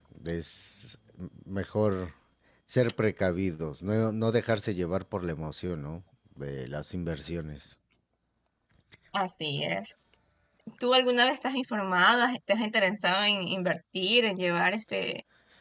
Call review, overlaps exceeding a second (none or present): none